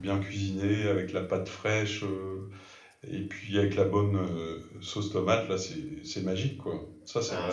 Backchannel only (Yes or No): No